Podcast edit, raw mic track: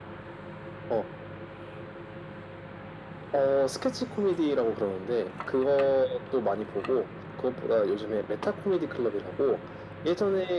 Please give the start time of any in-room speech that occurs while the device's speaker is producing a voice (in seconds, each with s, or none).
none